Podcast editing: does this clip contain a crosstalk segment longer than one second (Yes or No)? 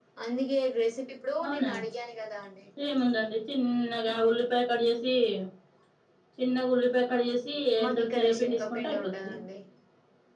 Yes